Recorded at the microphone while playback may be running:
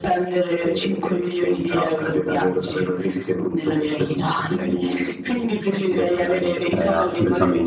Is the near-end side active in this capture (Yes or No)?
Yes